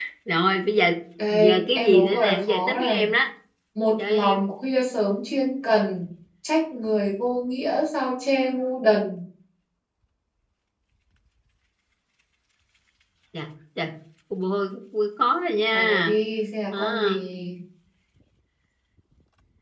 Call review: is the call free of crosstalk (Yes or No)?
No